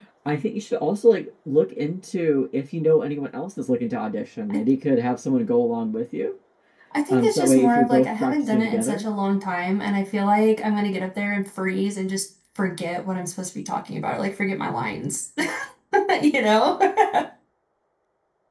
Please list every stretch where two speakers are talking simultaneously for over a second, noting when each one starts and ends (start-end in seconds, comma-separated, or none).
7.1-9.0